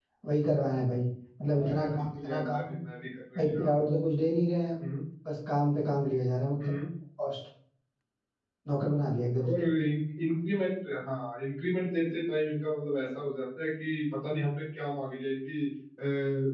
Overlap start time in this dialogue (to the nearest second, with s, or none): 1 s